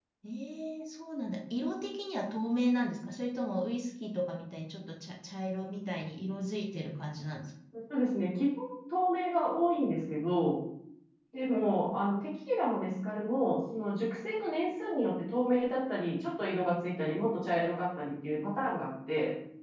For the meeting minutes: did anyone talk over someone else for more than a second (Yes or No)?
No